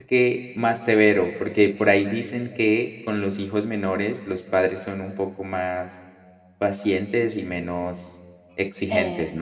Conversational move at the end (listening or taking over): taking over